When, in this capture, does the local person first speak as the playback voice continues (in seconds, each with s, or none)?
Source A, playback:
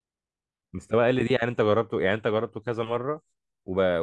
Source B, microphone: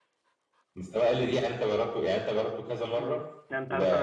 3.0 s